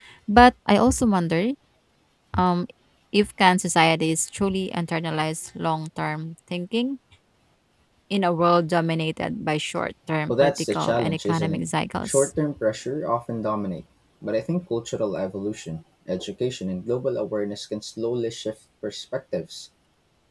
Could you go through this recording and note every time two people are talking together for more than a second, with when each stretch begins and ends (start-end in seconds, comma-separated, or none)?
10.3-11.6